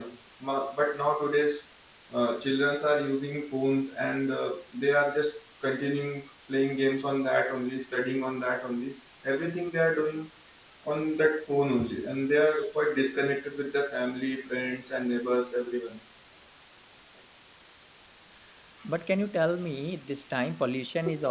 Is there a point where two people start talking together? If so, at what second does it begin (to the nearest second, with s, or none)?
none